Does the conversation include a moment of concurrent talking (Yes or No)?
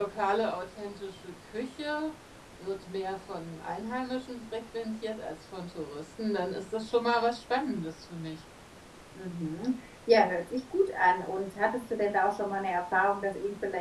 No